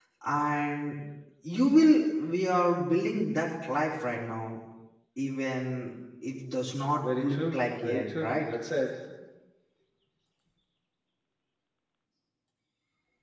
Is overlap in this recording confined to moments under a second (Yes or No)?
No